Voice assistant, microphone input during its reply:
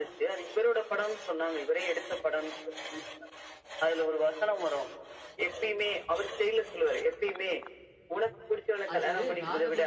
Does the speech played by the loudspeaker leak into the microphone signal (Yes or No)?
Yes